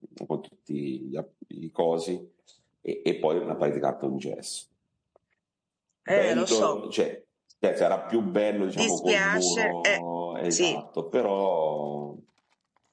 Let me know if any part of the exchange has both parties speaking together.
Yes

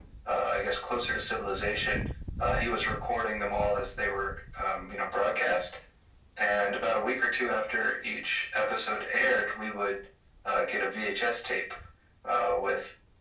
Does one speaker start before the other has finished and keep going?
No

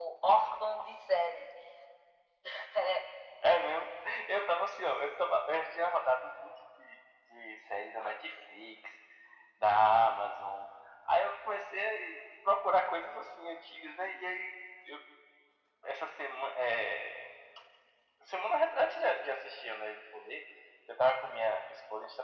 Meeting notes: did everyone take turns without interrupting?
Yes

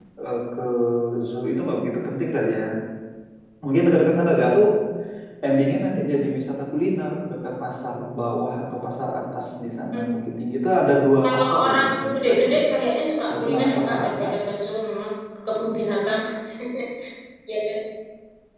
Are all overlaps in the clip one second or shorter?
No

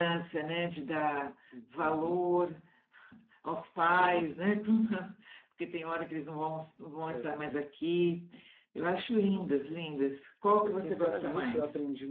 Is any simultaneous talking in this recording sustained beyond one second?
Yes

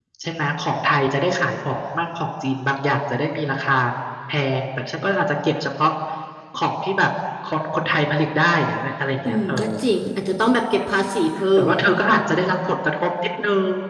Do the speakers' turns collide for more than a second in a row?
No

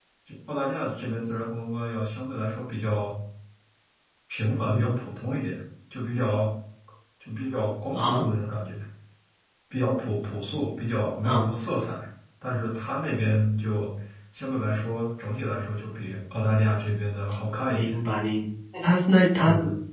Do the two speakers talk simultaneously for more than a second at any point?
No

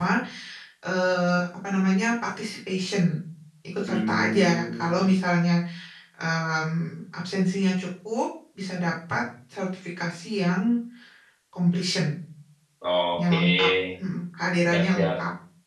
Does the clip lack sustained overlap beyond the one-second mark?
No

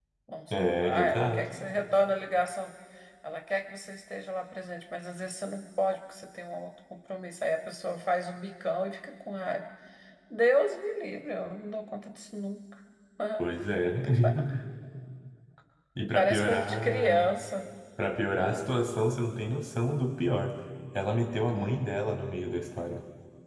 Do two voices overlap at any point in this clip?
Yes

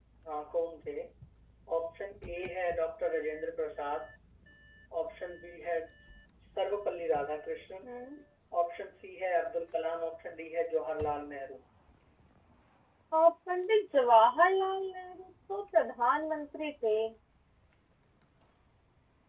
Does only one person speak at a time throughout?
Yes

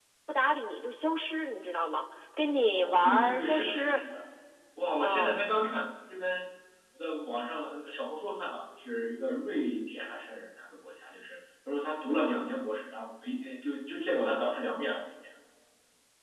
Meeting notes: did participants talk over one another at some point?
Yes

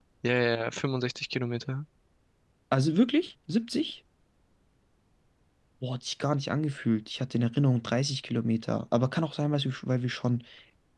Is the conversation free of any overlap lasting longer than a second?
Yes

